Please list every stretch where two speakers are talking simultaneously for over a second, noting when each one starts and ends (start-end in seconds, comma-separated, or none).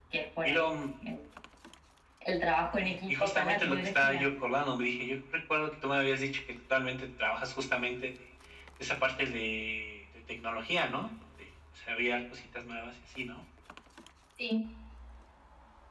2.8-4.3